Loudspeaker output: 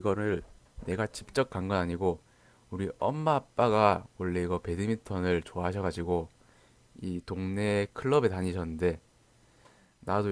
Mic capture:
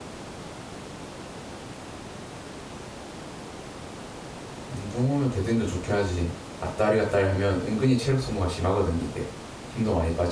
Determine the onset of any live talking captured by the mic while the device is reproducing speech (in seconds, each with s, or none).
4.7 s